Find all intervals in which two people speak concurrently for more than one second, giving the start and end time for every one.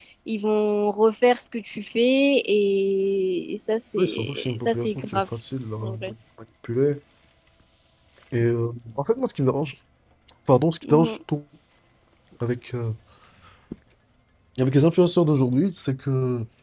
4.0-5.2

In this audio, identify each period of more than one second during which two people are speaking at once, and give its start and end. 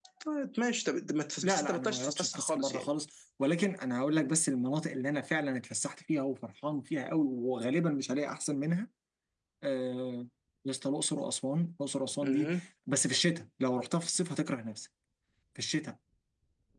1.4-2.9

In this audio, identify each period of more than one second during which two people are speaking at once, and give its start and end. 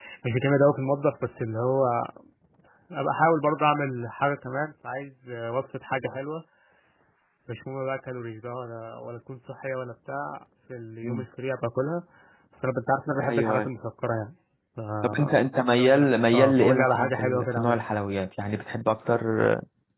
16.3-17.8

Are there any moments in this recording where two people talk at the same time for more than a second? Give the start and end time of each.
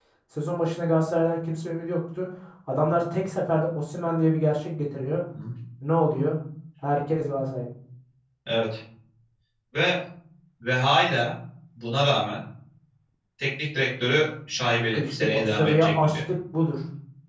14.7-16.2

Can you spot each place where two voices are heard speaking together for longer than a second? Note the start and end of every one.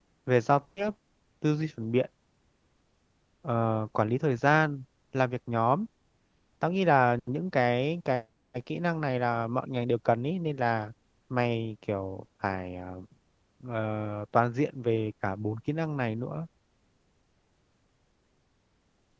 none

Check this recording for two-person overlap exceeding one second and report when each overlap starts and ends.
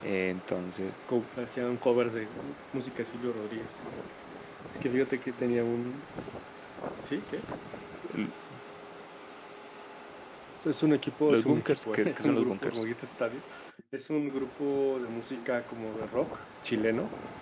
11.3-12.8

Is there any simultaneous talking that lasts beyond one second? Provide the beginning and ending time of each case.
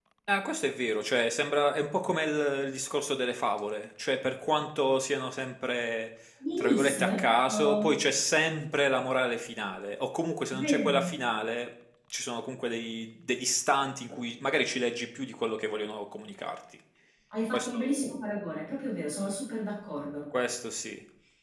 6.6-7.9

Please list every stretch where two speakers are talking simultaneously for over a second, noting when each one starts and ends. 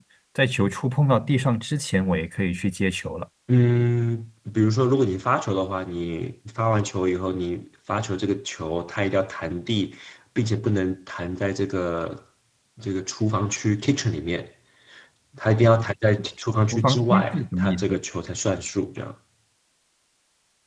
16.7-18.0

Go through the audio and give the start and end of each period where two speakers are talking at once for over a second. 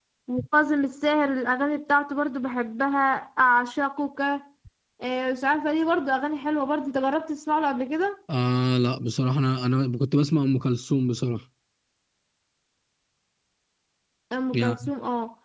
none

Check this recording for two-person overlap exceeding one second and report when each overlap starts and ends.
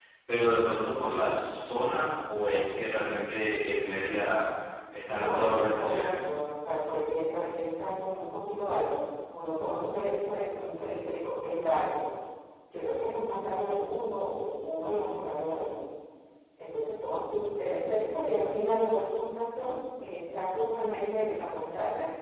5.2-6.4

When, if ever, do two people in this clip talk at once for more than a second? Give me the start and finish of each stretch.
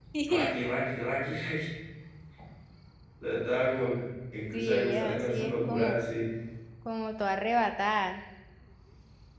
4.5-6.0

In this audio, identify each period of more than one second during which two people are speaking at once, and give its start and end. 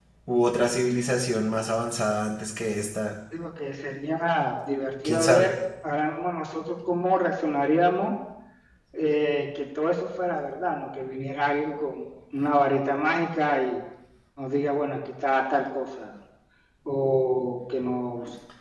none

